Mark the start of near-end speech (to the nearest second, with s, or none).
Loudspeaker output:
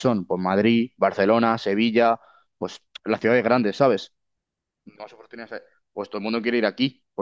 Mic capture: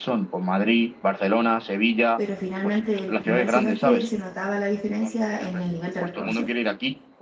2 s